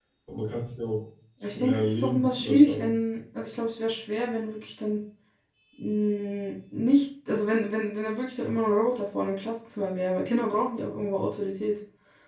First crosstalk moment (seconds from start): 1 s

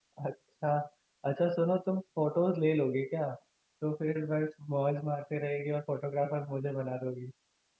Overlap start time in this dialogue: none

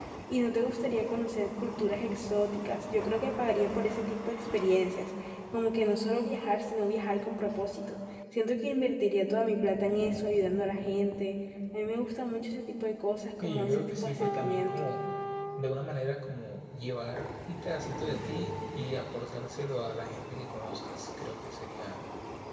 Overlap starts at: 13 s

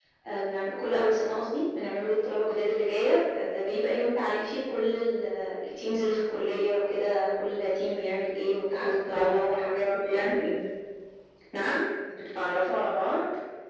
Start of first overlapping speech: 9 s

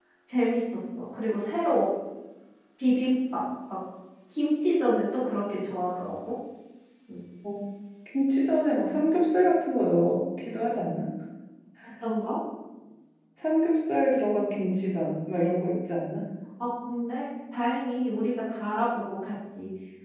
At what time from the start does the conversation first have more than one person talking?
none

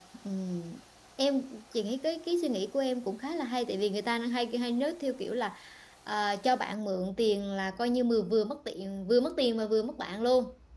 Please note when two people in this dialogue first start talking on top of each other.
none

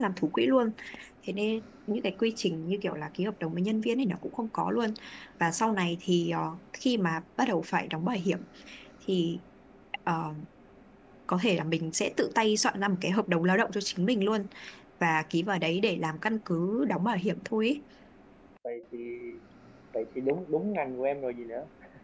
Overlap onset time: none

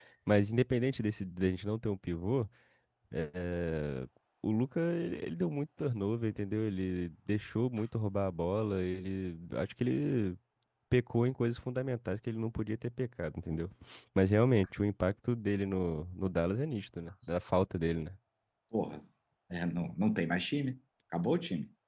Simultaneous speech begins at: none

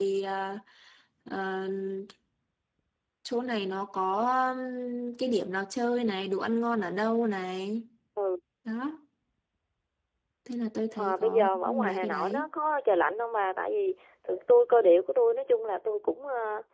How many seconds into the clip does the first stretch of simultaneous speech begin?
11 s

